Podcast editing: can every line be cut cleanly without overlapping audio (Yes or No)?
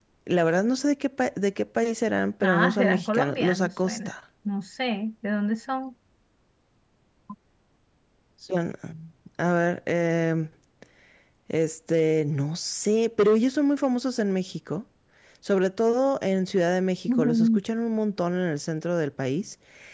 No